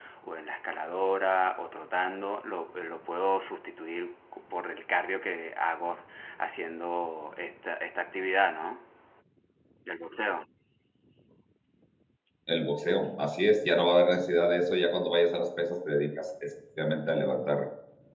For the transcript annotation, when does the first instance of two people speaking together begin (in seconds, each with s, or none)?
none